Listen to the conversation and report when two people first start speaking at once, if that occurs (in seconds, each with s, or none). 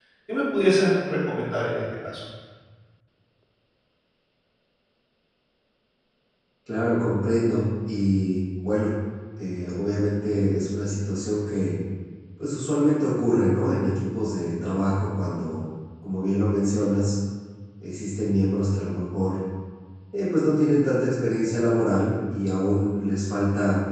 none